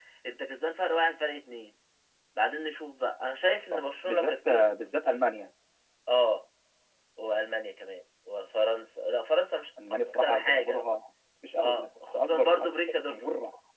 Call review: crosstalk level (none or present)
present